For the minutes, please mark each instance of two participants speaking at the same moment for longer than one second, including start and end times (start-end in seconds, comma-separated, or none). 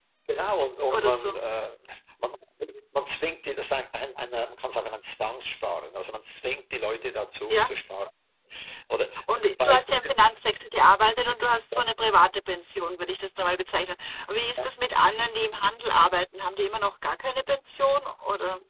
none